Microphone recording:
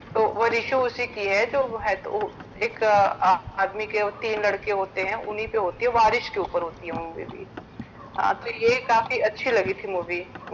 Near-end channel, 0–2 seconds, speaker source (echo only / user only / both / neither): echo only